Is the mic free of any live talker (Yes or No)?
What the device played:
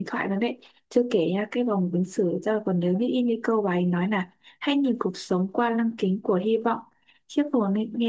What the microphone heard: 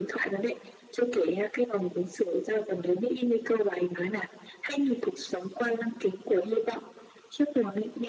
Yes